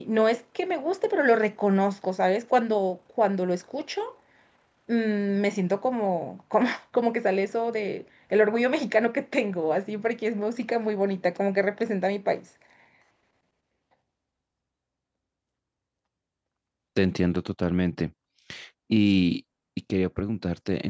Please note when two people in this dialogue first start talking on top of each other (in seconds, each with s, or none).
none